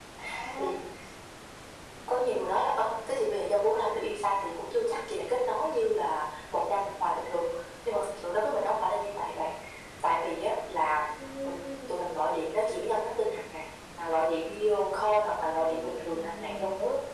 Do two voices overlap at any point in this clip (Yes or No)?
Yes